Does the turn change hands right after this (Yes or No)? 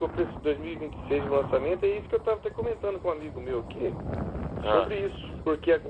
No